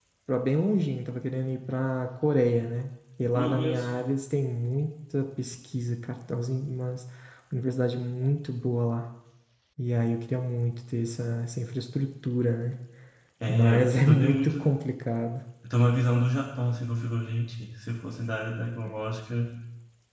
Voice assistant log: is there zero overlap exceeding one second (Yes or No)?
No